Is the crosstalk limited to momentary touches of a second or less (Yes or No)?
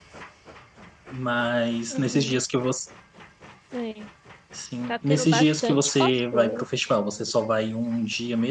No